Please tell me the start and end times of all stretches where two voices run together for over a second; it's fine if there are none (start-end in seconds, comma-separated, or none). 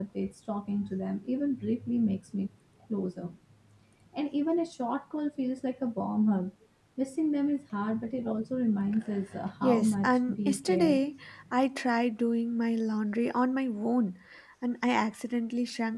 9.6-11.0